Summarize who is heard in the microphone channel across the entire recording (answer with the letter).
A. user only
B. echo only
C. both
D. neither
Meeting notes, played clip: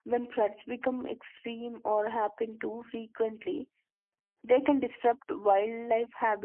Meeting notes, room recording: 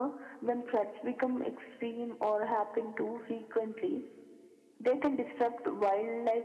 B